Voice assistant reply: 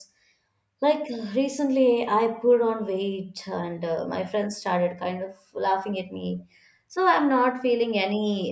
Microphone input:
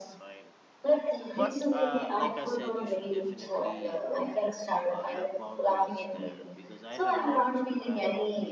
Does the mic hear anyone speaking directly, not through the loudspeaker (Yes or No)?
Yes